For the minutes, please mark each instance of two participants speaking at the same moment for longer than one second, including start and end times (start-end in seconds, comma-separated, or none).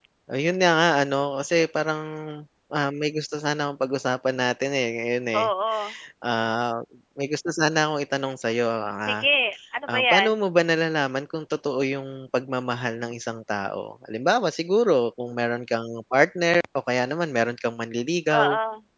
none